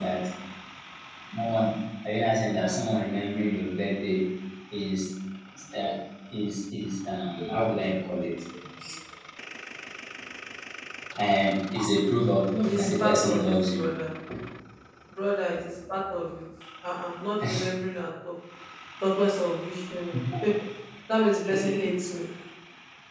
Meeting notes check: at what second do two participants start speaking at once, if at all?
13 s

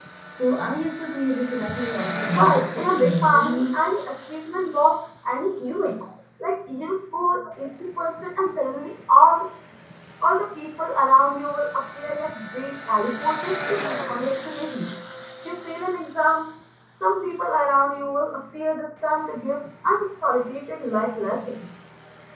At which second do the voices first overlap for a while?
2 s

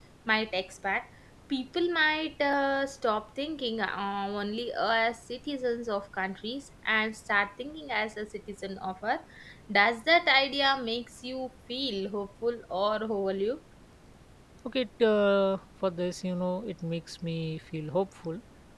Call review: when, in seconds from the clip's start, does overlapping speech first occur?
none

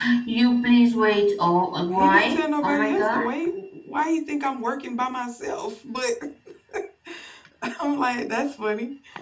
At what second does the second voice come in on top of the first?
2 s

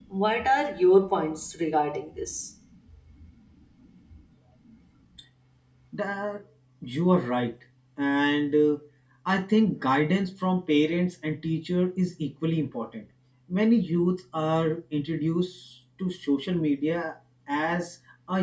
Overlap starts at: none

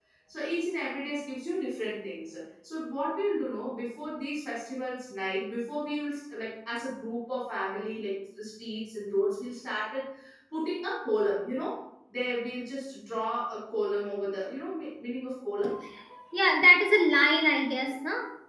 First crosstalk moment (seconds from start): none

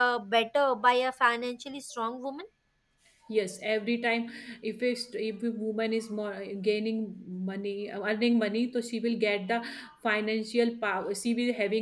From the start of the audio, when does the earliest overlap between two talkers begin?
none

